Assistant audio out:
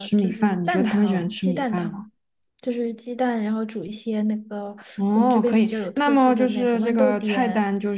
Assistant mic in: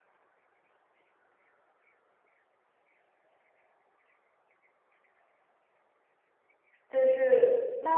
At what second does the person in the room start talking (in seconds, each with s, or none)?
6.9 s